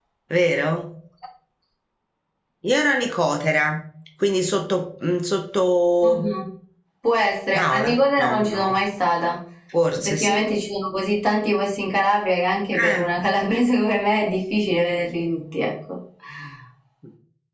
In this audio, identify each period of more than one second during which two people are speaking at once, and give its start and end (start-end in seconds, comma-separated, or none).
7.5-8.8